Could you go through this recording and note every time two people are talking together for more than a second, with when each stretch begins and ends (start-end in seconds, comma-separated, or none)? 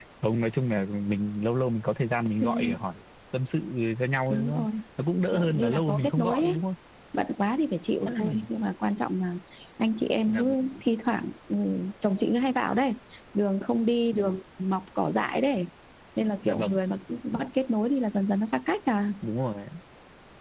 5.3-6.6